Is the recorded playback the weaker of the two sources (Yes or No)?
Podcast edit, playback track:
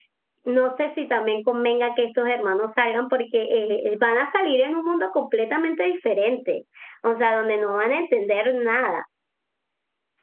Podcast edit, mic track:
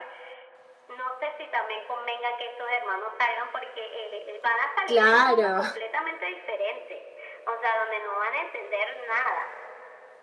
Yes